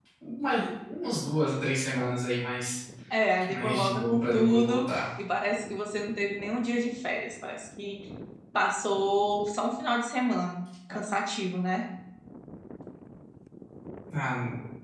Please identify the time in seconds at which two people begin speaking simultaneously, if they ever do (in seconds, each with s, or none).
3.5 s